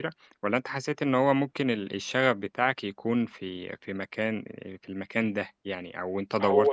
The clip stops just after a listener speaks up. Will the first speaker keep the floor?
No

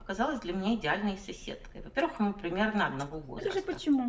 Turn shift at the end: Yes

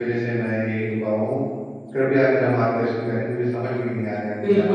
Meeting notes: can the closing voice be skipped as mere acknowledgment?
No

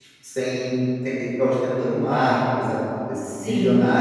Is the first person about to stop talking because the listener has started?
No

